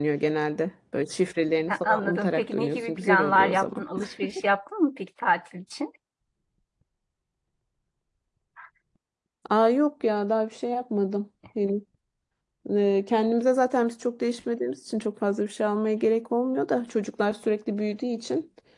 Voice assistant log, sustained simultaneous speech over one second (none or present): present